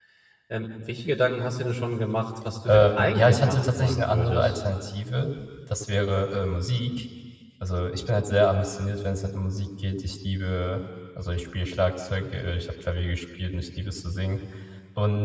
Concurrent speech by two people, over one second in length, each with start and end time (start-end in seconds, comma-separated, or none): 2.6-4.6